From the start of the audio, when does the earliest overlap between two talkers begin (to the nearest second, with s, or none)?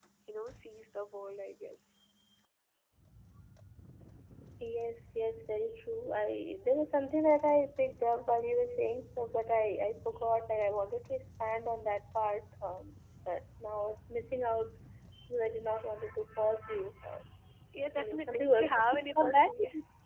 18 s